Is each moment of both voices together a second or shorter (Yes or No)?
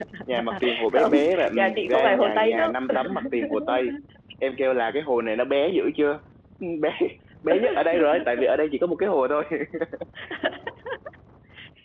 No